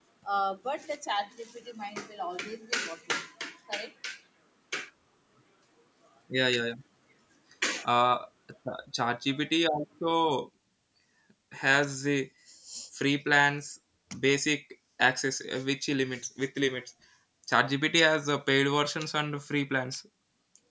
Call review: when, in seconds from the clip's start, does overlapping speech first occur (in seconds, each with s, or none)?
none